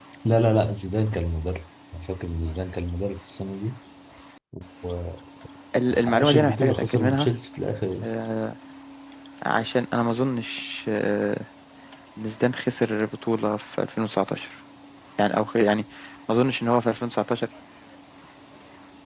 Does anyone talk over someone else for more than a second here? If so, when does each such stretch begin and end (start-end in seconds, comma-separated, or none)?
5.9-7.3